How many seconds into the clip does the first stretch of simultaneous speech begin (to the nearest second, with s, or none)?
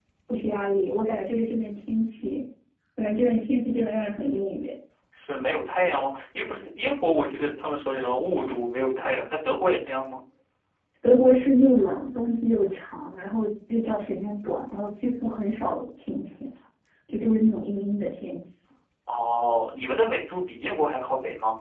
none